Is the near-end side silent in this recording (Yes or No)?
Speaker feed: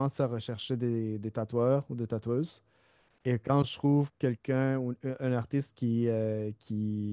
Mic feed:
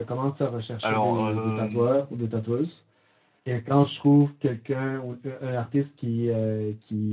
No